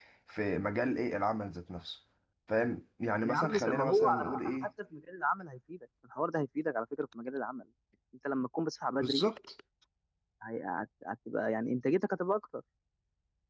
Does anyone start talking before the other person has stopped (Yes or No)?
Yes